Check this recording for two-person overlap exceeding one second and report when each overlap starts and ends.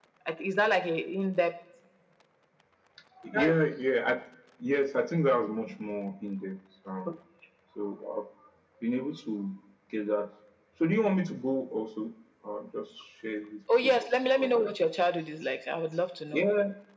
none

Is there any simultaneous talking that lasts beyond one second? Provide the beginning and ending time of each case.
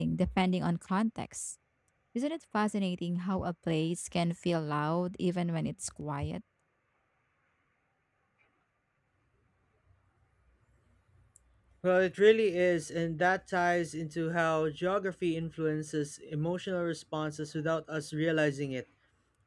none

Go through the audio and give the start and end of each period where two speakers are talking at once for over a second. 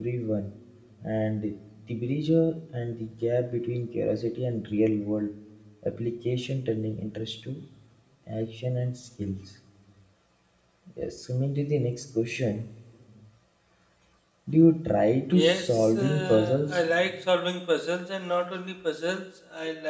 15.3-16.8

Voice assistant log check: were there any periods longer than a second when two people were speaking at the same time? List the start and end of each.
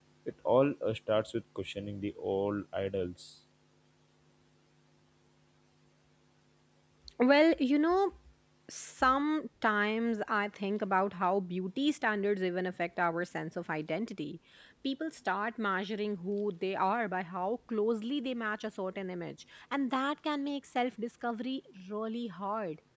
none

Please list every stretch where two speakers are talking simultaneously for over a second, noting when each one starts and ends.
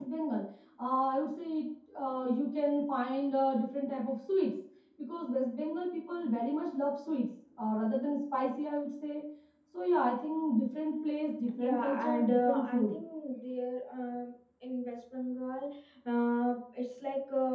11.6-13.0

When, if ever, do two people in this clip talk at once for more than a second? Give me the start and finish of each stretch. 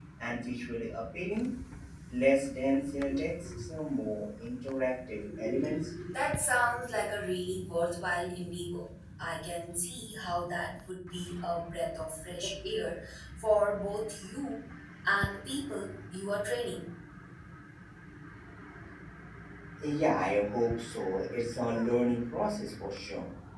none

